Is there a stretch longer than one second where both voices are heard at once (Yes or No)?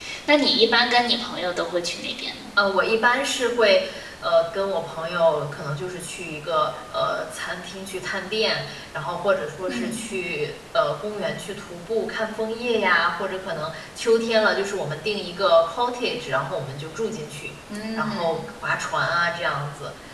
No